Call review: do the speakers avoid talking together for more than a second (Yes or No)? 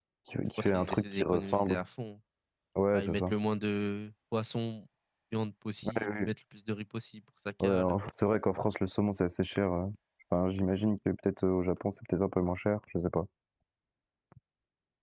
No